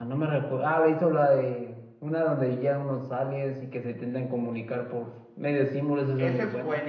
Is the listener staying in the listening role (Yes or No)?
No